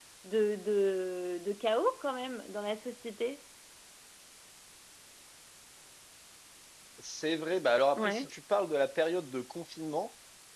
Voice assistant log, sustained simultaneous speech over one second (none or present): none